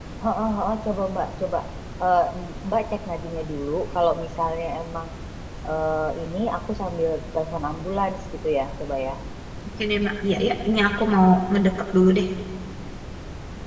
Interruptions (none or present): none